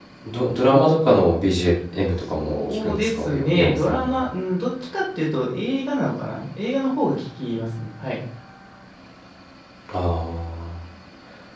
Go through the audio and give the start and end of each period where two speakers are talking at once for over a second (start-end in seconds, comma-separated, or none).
2.3-4.1